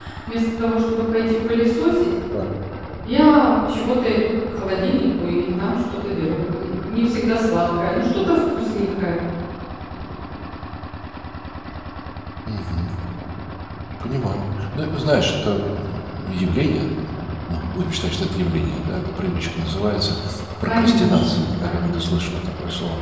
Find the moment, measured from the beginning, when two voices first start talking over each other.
20.6 s

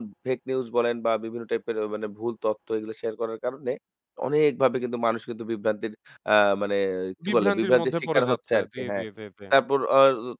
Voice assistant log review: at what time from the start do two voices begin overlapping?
7.3 s

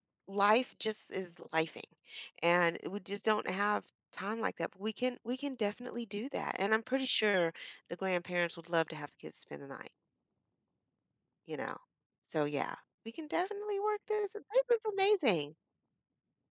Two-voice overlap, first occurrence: none

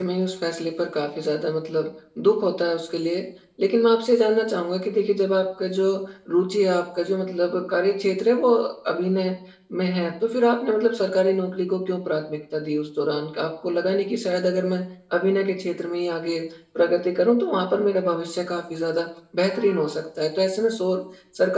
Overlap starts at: none

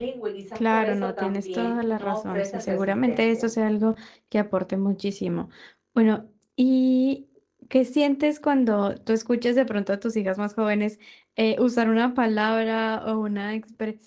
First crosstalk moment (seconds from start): 0.6 s

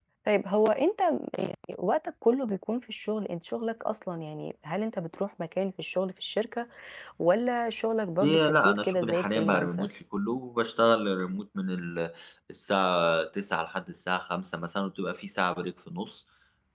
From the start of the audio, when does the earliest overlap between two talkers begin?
8.2 s

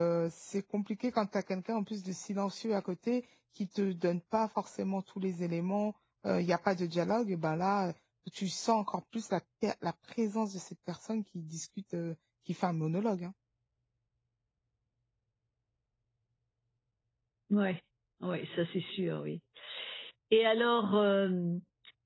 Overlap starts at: none

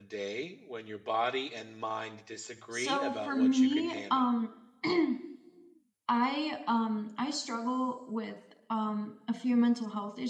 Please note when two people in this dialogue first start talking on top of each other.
2.7 s

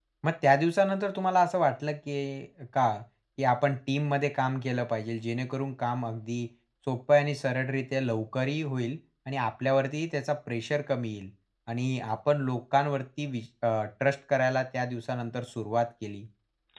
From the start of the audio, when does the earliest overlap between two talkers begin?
none

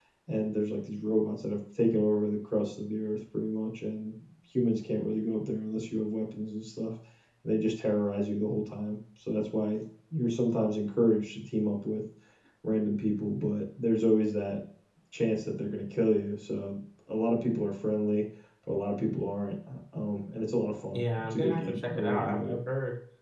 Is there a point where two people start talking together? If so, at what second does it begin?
20.9 s

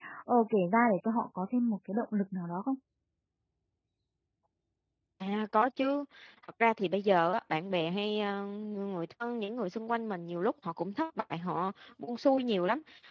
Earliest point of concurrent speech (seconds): none

